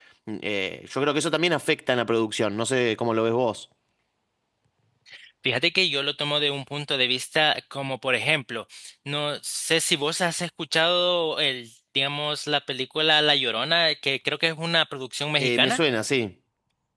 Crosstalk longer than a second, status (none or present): none